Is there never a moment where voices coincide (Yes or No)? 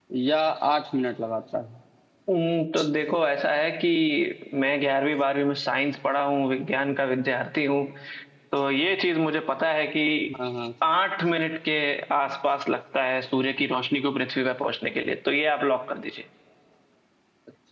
Yes